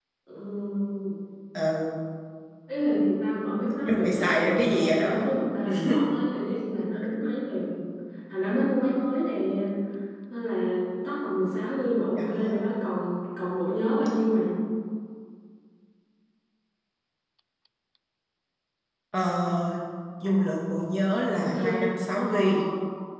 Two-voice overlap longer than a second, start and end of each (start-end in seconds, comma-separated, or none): 3.9-5.3